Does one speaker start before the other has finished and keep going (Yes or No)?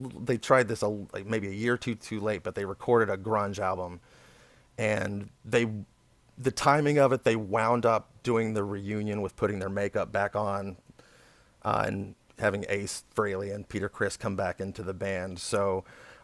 No